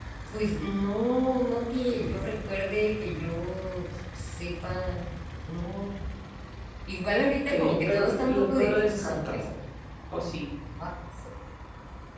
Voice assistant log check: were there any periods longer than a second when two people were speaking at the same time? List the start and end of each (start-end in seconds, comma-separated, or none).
7.5-9.4